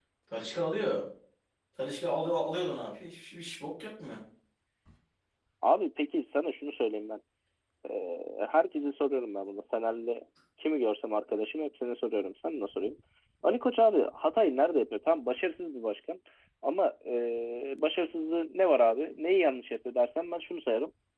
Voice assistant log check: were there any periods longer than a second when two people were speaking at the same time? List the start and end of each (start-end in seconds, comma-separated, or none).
none